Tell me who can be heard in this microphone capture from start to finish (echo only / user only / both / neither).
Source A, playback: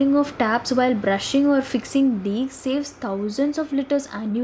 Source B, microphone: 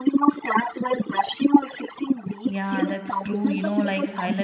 both